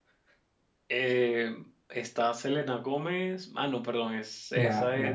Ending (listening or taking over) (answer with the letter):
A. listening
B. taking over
B